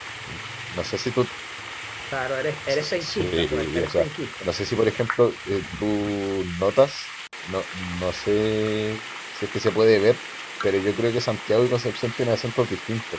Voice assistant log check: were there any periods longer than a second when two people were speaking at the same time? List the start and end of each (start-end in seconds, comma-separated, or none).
2.7-4.1